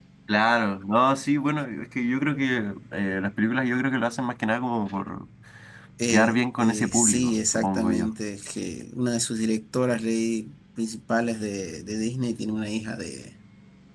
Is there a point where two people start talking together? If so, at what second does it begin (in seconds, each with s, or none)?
6.1 s